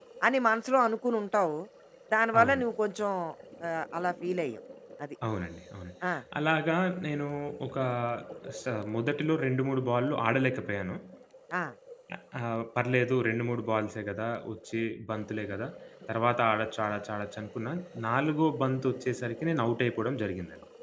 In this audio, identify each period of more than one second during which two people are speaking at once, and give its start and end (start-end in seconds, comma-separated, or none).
none